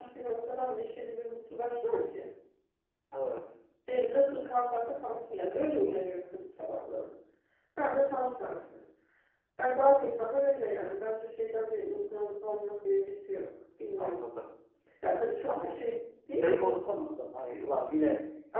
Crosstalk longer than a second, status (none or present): none